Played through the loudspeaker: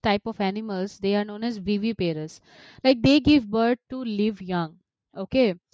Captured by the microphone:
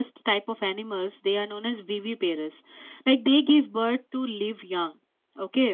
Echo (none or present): present